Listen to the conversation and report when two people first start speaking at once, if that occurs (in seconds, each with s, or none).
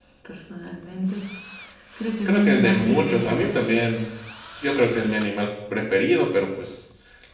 2.2 s